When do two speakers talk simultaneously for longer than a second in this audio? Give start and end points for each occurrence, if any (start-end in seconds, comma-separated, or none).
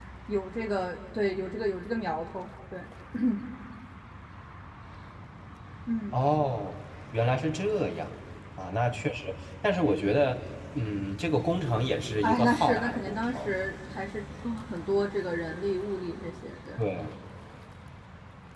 12.2-13.5